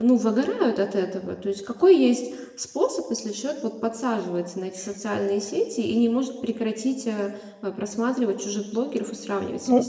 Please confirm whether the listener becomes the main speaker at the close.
Yes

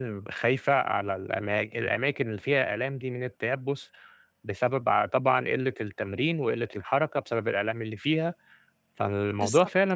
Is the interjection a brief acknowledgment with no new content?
Yes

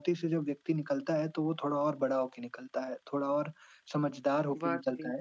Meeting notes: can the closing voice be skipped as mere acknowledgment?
Yes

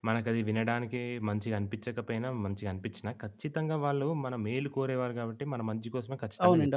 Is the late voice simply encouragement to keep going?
No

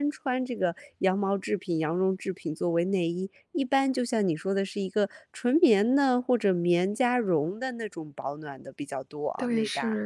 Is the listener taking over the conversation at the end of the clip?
Yes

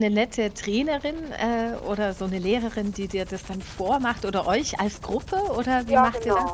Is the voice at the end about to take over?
Yes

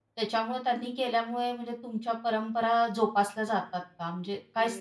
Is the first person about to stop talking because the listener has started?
Yes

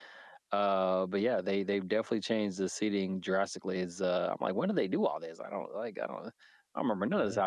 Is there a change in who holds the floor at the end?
No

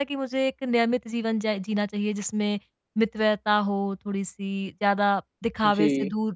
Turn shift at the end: No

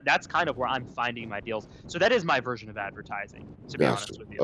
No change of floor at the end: No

